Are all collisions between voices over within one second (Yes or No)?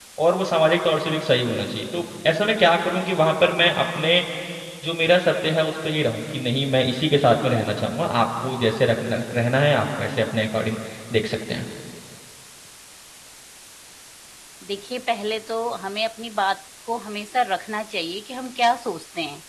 Yes